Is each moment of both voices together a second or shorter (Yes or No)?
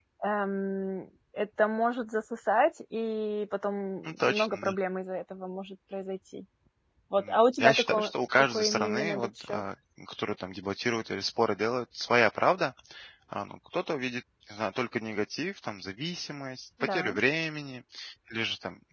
No